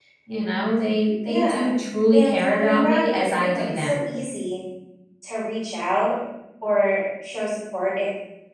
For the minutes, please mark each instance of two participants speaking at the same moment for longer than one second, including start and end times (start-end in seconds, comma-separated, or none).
2.1-4.0